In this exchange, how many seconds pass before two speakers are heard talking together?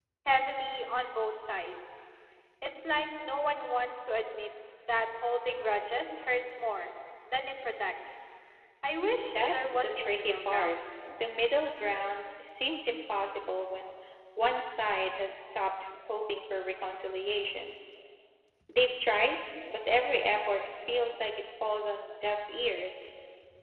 9.2 s

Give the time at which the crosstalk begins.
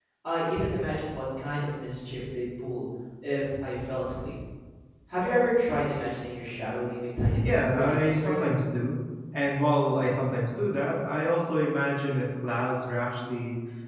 7.4 s

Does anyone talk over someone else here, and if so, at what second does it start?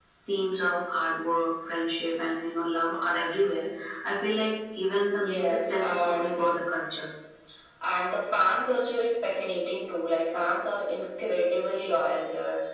5.2 s

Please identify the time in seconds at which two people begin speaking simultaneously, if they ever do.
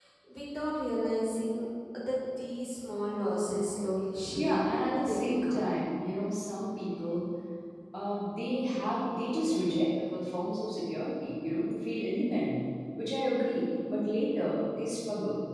4.3 s

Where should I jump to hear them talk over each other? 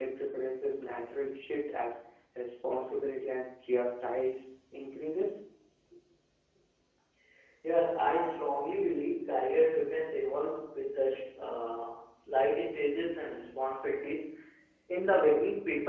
none

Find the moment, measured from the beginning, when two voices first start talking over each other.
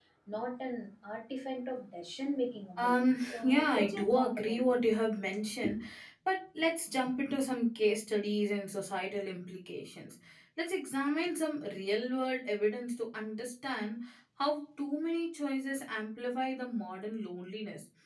2.8 s

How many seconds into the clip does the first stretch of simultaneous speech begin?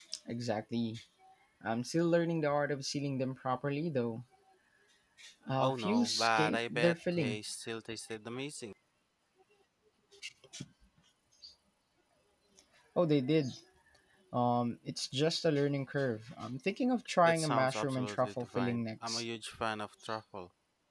5.6 s

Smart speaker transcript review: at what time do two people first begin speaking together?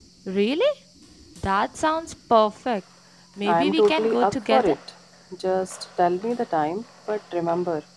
3.5 s

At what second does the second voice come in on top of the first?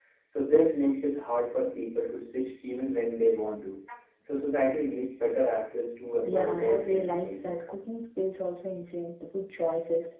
6.2 s

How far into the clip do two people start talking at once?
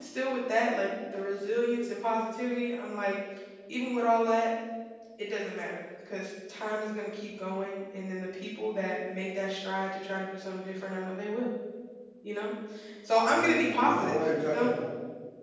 13.2 s

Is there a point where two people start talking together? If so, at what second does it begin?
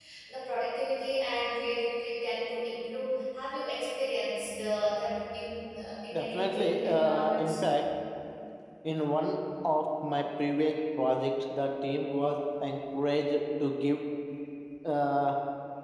6.1 s

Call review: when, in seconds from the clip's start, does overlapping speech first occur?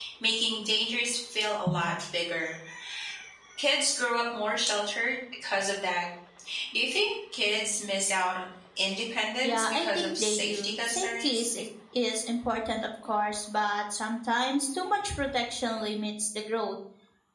9.4 s

